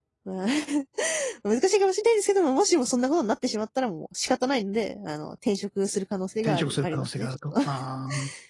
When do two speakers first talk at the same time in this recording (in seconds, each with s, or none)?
6.5 s